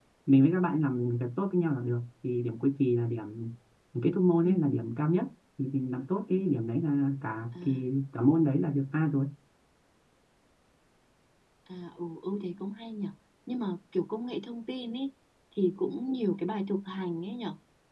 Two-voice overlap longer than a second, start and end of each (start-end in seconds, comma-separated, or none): none